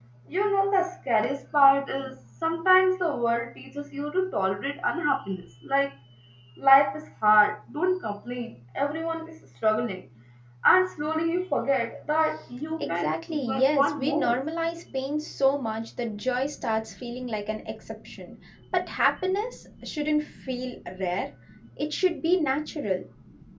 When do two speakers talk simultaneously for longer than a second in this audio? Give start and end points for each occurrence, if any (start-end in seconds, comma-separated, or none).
12.8-14.4